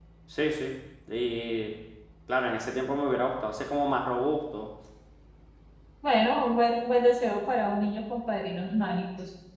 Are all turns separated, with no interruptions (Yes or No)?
Yes